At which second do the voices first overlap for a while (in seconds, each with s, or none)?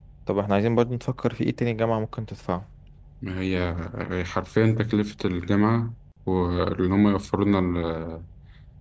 none